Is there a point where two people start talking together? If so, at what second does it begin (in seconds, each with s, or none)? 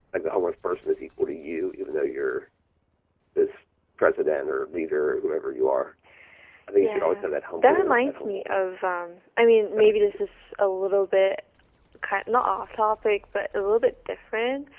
6.8 s